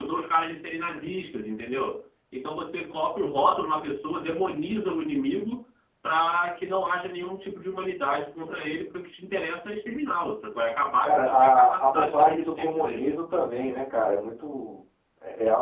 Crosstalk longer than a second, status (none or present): present